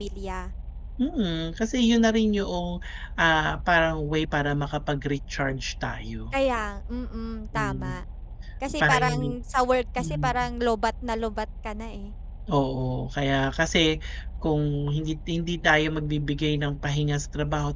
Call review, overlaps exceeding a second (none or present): none